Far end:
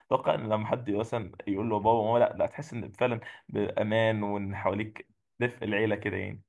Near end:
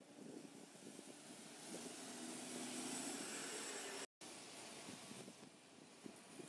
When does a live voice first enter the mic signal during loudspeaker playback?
none

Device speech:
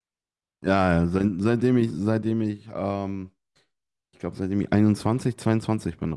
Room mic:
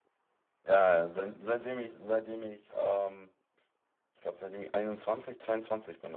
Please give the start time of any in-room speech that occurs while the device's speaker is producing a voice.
none

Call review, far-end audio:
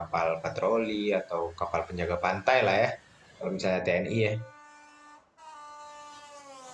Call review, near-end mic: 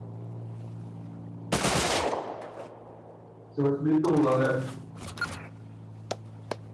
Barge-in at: 3.5 s

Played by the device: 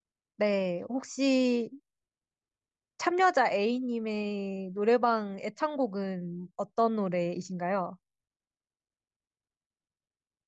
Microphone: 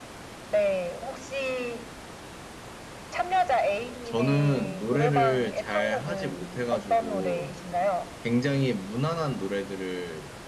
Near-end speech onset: 4.0 s

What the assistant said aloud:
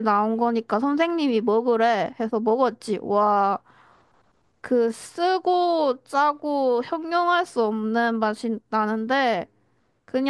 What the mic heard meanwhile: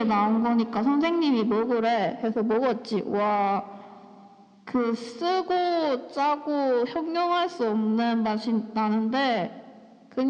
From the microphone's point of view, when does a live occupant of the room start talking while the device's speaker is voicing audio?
none

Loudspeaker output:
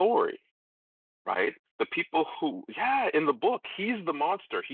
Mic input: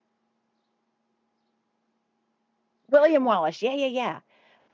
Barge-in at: 2.9 s

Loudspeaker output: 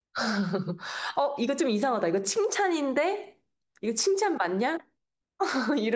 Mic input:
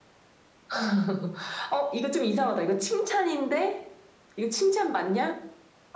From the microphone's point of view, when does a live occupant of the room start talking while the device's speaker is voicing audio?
none

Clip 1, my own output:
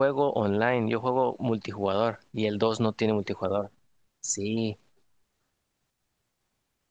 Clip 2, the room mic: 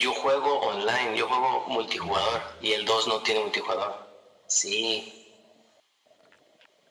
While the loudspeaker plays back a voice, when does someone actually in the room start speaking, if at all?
2.0 s

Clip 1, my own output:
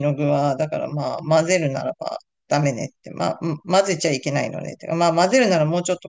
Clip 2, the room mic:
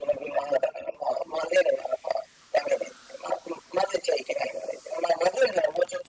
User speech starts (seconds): none

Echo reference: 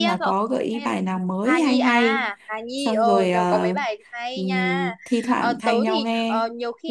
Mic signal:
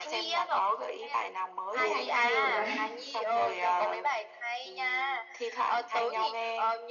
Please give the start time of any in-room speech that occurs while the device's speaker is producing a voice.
1.7 s

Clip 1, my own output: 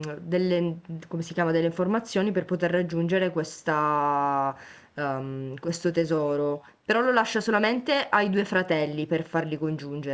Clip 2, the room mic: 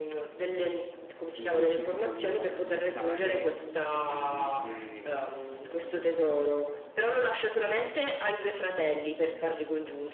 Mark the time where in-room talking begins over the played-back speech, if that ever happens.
1.3 s

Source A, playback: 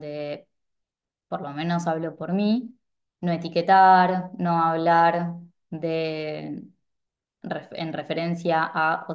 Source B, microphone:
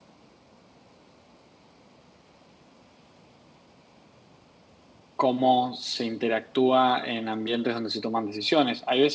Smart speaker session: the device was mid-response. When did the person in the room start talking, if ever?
5.2 s

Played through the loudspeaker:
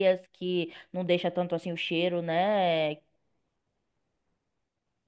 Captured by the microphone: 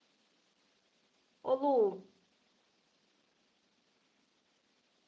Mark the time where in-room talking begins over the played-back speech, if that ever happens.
1.4 s

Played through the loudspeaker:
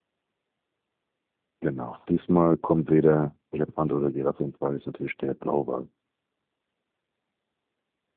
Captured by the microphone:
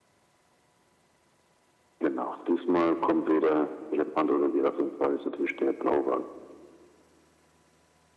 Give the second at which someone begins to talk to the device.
none

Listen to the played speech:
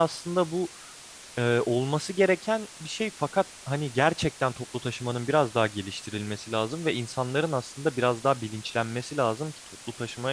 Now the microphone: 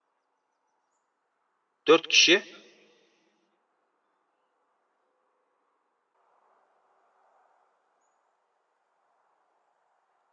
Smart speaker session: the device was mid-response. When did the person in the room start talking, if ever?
1.9 s

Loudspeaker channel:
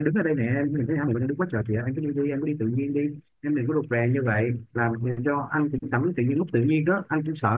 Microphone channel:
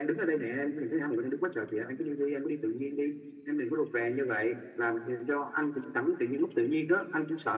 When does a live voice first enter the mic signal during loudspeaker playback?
none

